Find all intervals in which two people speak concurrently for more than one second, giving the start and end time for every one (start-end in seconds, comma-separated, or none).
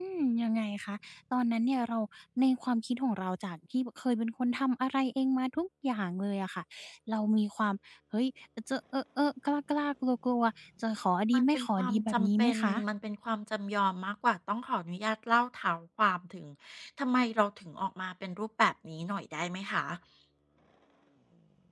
11.3-12.7